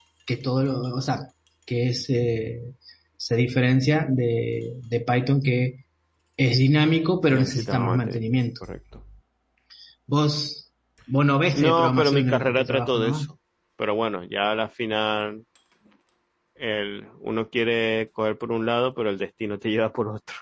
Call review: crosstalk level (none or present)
present